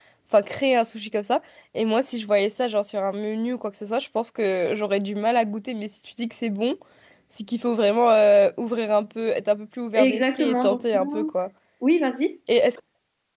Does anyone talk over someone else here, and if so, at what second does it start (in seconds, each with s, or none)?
9.9 s